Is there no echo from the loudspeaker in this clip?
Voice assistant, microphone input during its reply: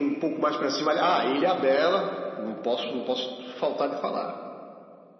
No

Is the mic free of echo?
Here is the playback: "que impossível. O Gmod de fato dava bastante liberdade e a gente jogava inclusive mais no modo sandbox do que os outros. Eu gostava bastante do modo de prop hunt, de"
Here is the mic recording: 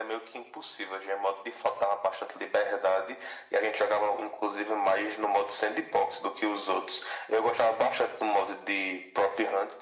No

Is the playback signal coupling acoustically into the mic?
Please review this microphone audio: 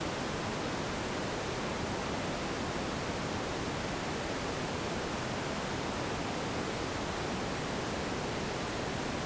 No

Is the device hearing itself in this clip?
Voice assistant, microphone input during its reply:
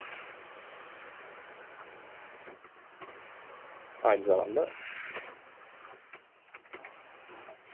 No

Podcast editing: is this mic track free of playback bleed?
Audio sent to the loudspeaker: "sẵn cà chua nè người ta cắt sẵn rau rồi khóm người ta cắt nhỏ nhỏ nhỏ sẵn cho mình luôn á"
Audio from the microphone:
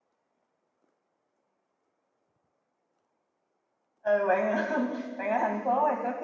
Yes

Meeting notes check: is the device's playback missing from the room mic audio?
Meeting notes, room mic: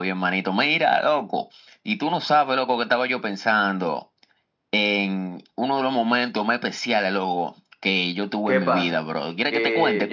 No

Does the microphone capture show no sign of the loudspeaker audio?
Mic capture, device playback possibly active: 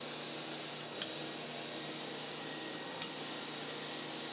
Yes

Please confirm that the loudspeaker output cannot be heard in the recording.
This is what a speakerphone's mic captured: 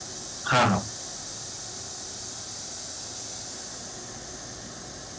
Yes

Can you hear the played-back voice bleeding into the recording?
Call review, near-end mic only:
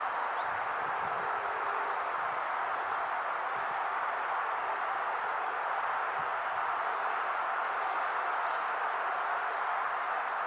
No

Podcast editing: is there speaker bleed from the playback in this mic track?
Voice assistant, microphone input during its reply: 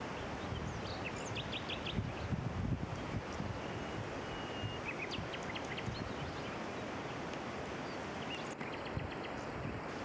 No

